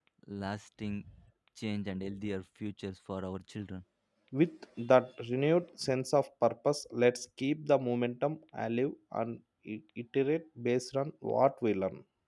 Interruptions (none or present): none